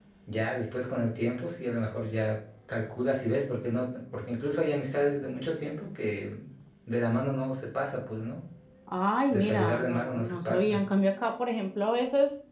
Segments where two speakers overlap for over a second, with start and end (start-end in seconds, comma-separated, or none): 9.3-10.8